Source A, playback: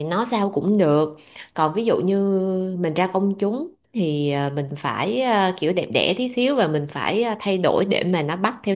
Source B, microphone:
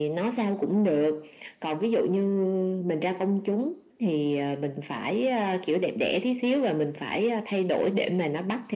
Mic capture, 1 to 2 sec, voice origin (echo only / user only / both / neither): echo only